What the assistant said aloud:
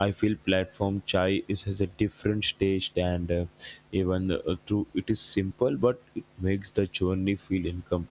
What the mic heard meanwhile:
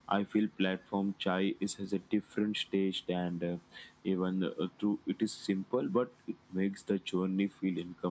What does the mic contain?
echo only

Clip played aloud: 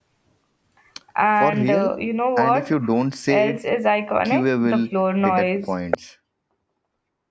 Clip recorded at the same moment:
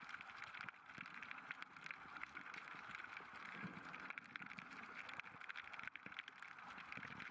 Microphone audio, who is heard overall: neither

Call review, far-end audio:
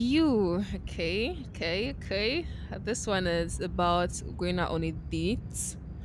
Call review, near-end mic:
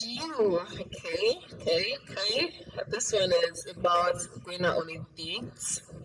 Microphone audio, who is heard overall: echo only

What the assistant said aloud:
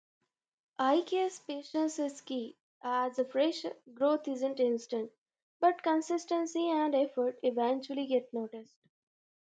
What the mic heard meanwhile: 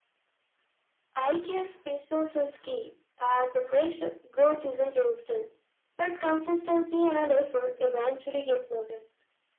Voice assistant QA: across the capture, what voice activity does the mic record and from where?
echo only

